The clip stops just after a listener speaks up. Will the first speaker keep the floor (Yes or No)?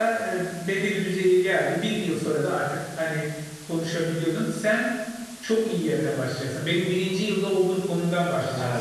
No